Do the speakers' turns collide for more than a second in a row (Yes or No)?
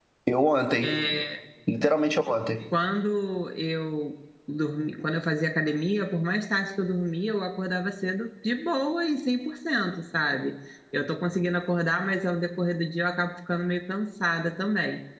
No